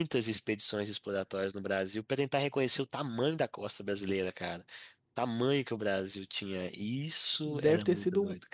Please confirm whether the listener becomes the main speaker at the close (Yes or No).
Yes